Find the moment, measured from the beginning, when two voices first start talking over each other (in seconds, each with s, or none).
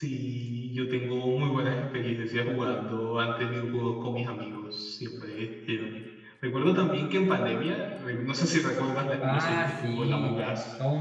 9.2 s